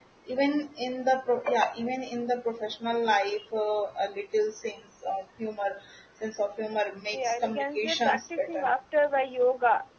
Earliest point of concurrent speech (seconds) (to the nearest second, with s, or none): 7 s